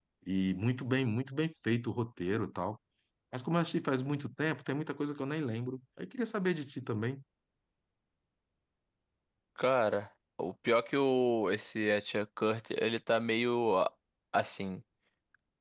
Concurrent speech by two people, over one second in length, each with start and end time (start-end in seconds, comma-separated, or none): none